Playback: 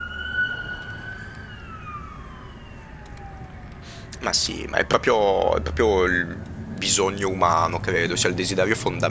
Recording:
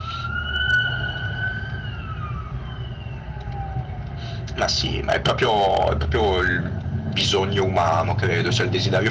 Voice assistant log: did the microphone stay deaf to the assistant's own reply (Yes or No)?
No